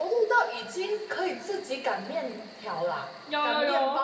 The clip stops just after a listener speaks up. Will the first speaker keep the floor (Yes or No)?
No